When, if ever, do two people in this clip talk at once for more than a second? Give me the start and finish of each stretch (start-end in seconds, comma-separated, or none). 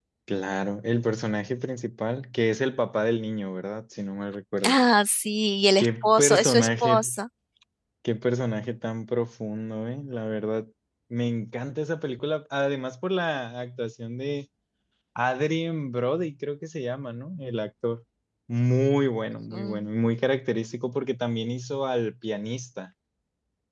5.8-7.1